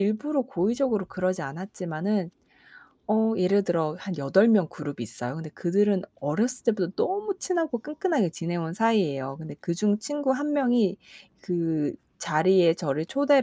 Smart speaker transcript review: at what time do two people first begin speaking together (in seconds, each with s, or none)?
none